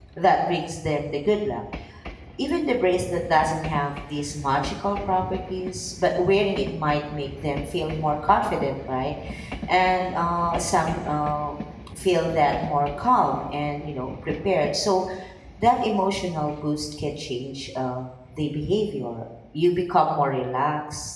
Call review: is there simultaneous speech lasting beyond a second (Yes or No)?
No